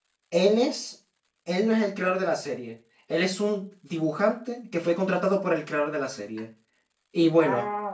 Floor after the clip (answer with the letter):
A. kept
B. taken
A